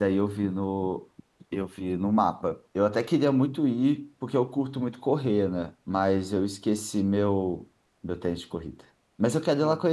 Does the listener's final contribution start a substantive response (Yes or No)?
No